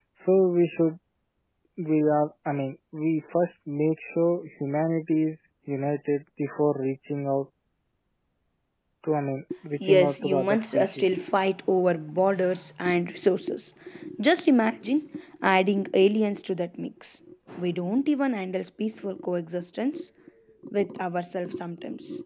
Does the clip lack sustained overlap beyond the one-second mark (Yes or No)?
No